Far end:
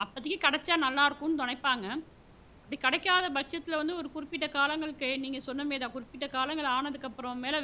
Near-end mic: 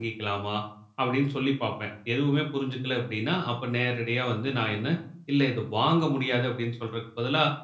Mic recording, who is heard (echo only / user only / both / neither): user only